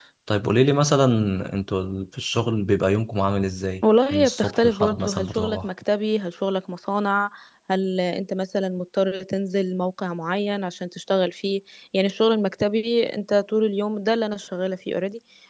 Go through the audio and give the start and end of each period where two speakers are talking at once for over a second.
4.1-5.7

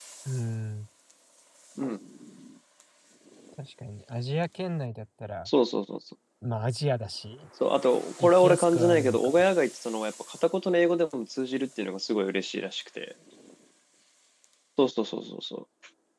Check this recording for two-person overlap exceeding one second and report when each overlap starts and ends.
8.2-9.4

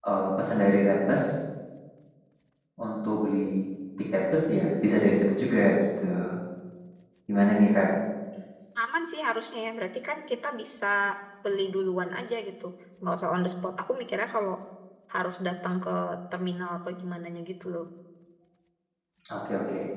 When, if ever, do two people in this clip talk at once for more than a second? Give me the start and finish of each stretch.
none

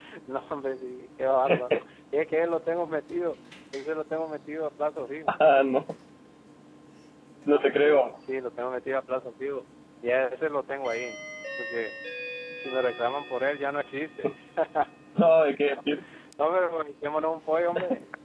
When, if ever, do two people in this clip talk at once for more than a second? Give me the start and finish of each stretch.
none

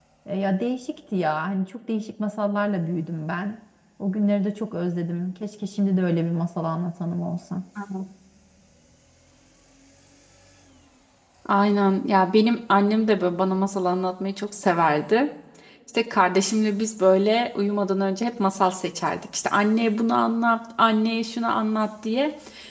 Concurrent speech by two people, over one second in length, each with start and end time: none

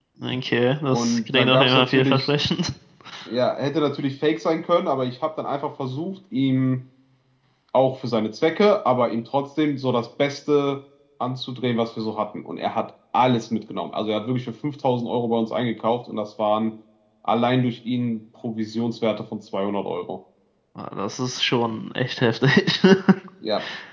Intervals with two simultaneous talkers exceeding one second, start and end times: 0.9-2.3

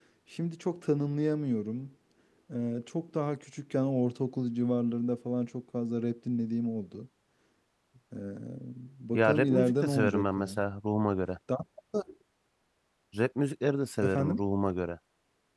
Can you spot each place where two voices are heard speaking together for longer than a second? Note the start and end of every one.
9.1-10.6

